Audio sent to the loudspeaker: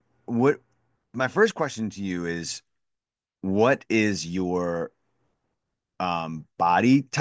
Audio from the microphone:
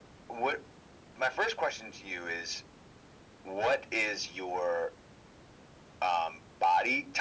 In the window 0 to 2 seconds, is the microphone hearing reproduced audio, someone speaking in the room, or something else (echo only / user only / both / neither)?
echo only